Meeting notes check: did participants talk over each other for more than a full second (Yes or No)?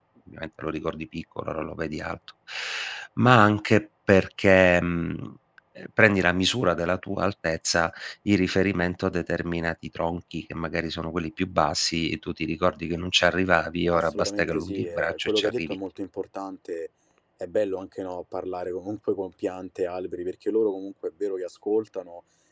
Yes